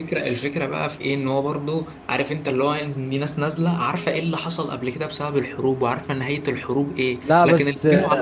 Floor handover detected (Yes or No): No